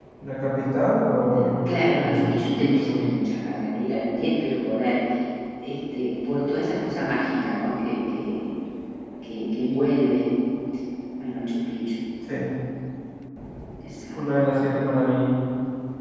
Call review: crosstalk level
present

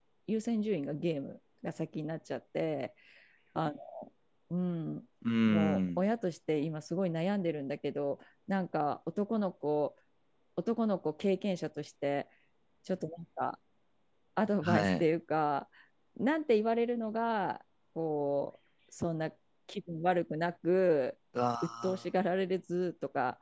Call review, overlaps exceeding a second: none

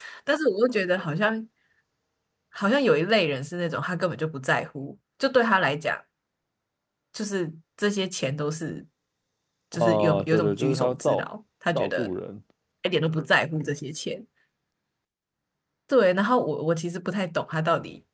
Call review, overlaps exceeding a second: present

